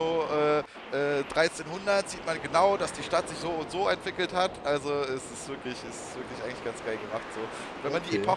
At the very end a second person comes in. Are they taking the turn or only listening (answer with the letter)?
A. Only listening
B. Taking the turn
A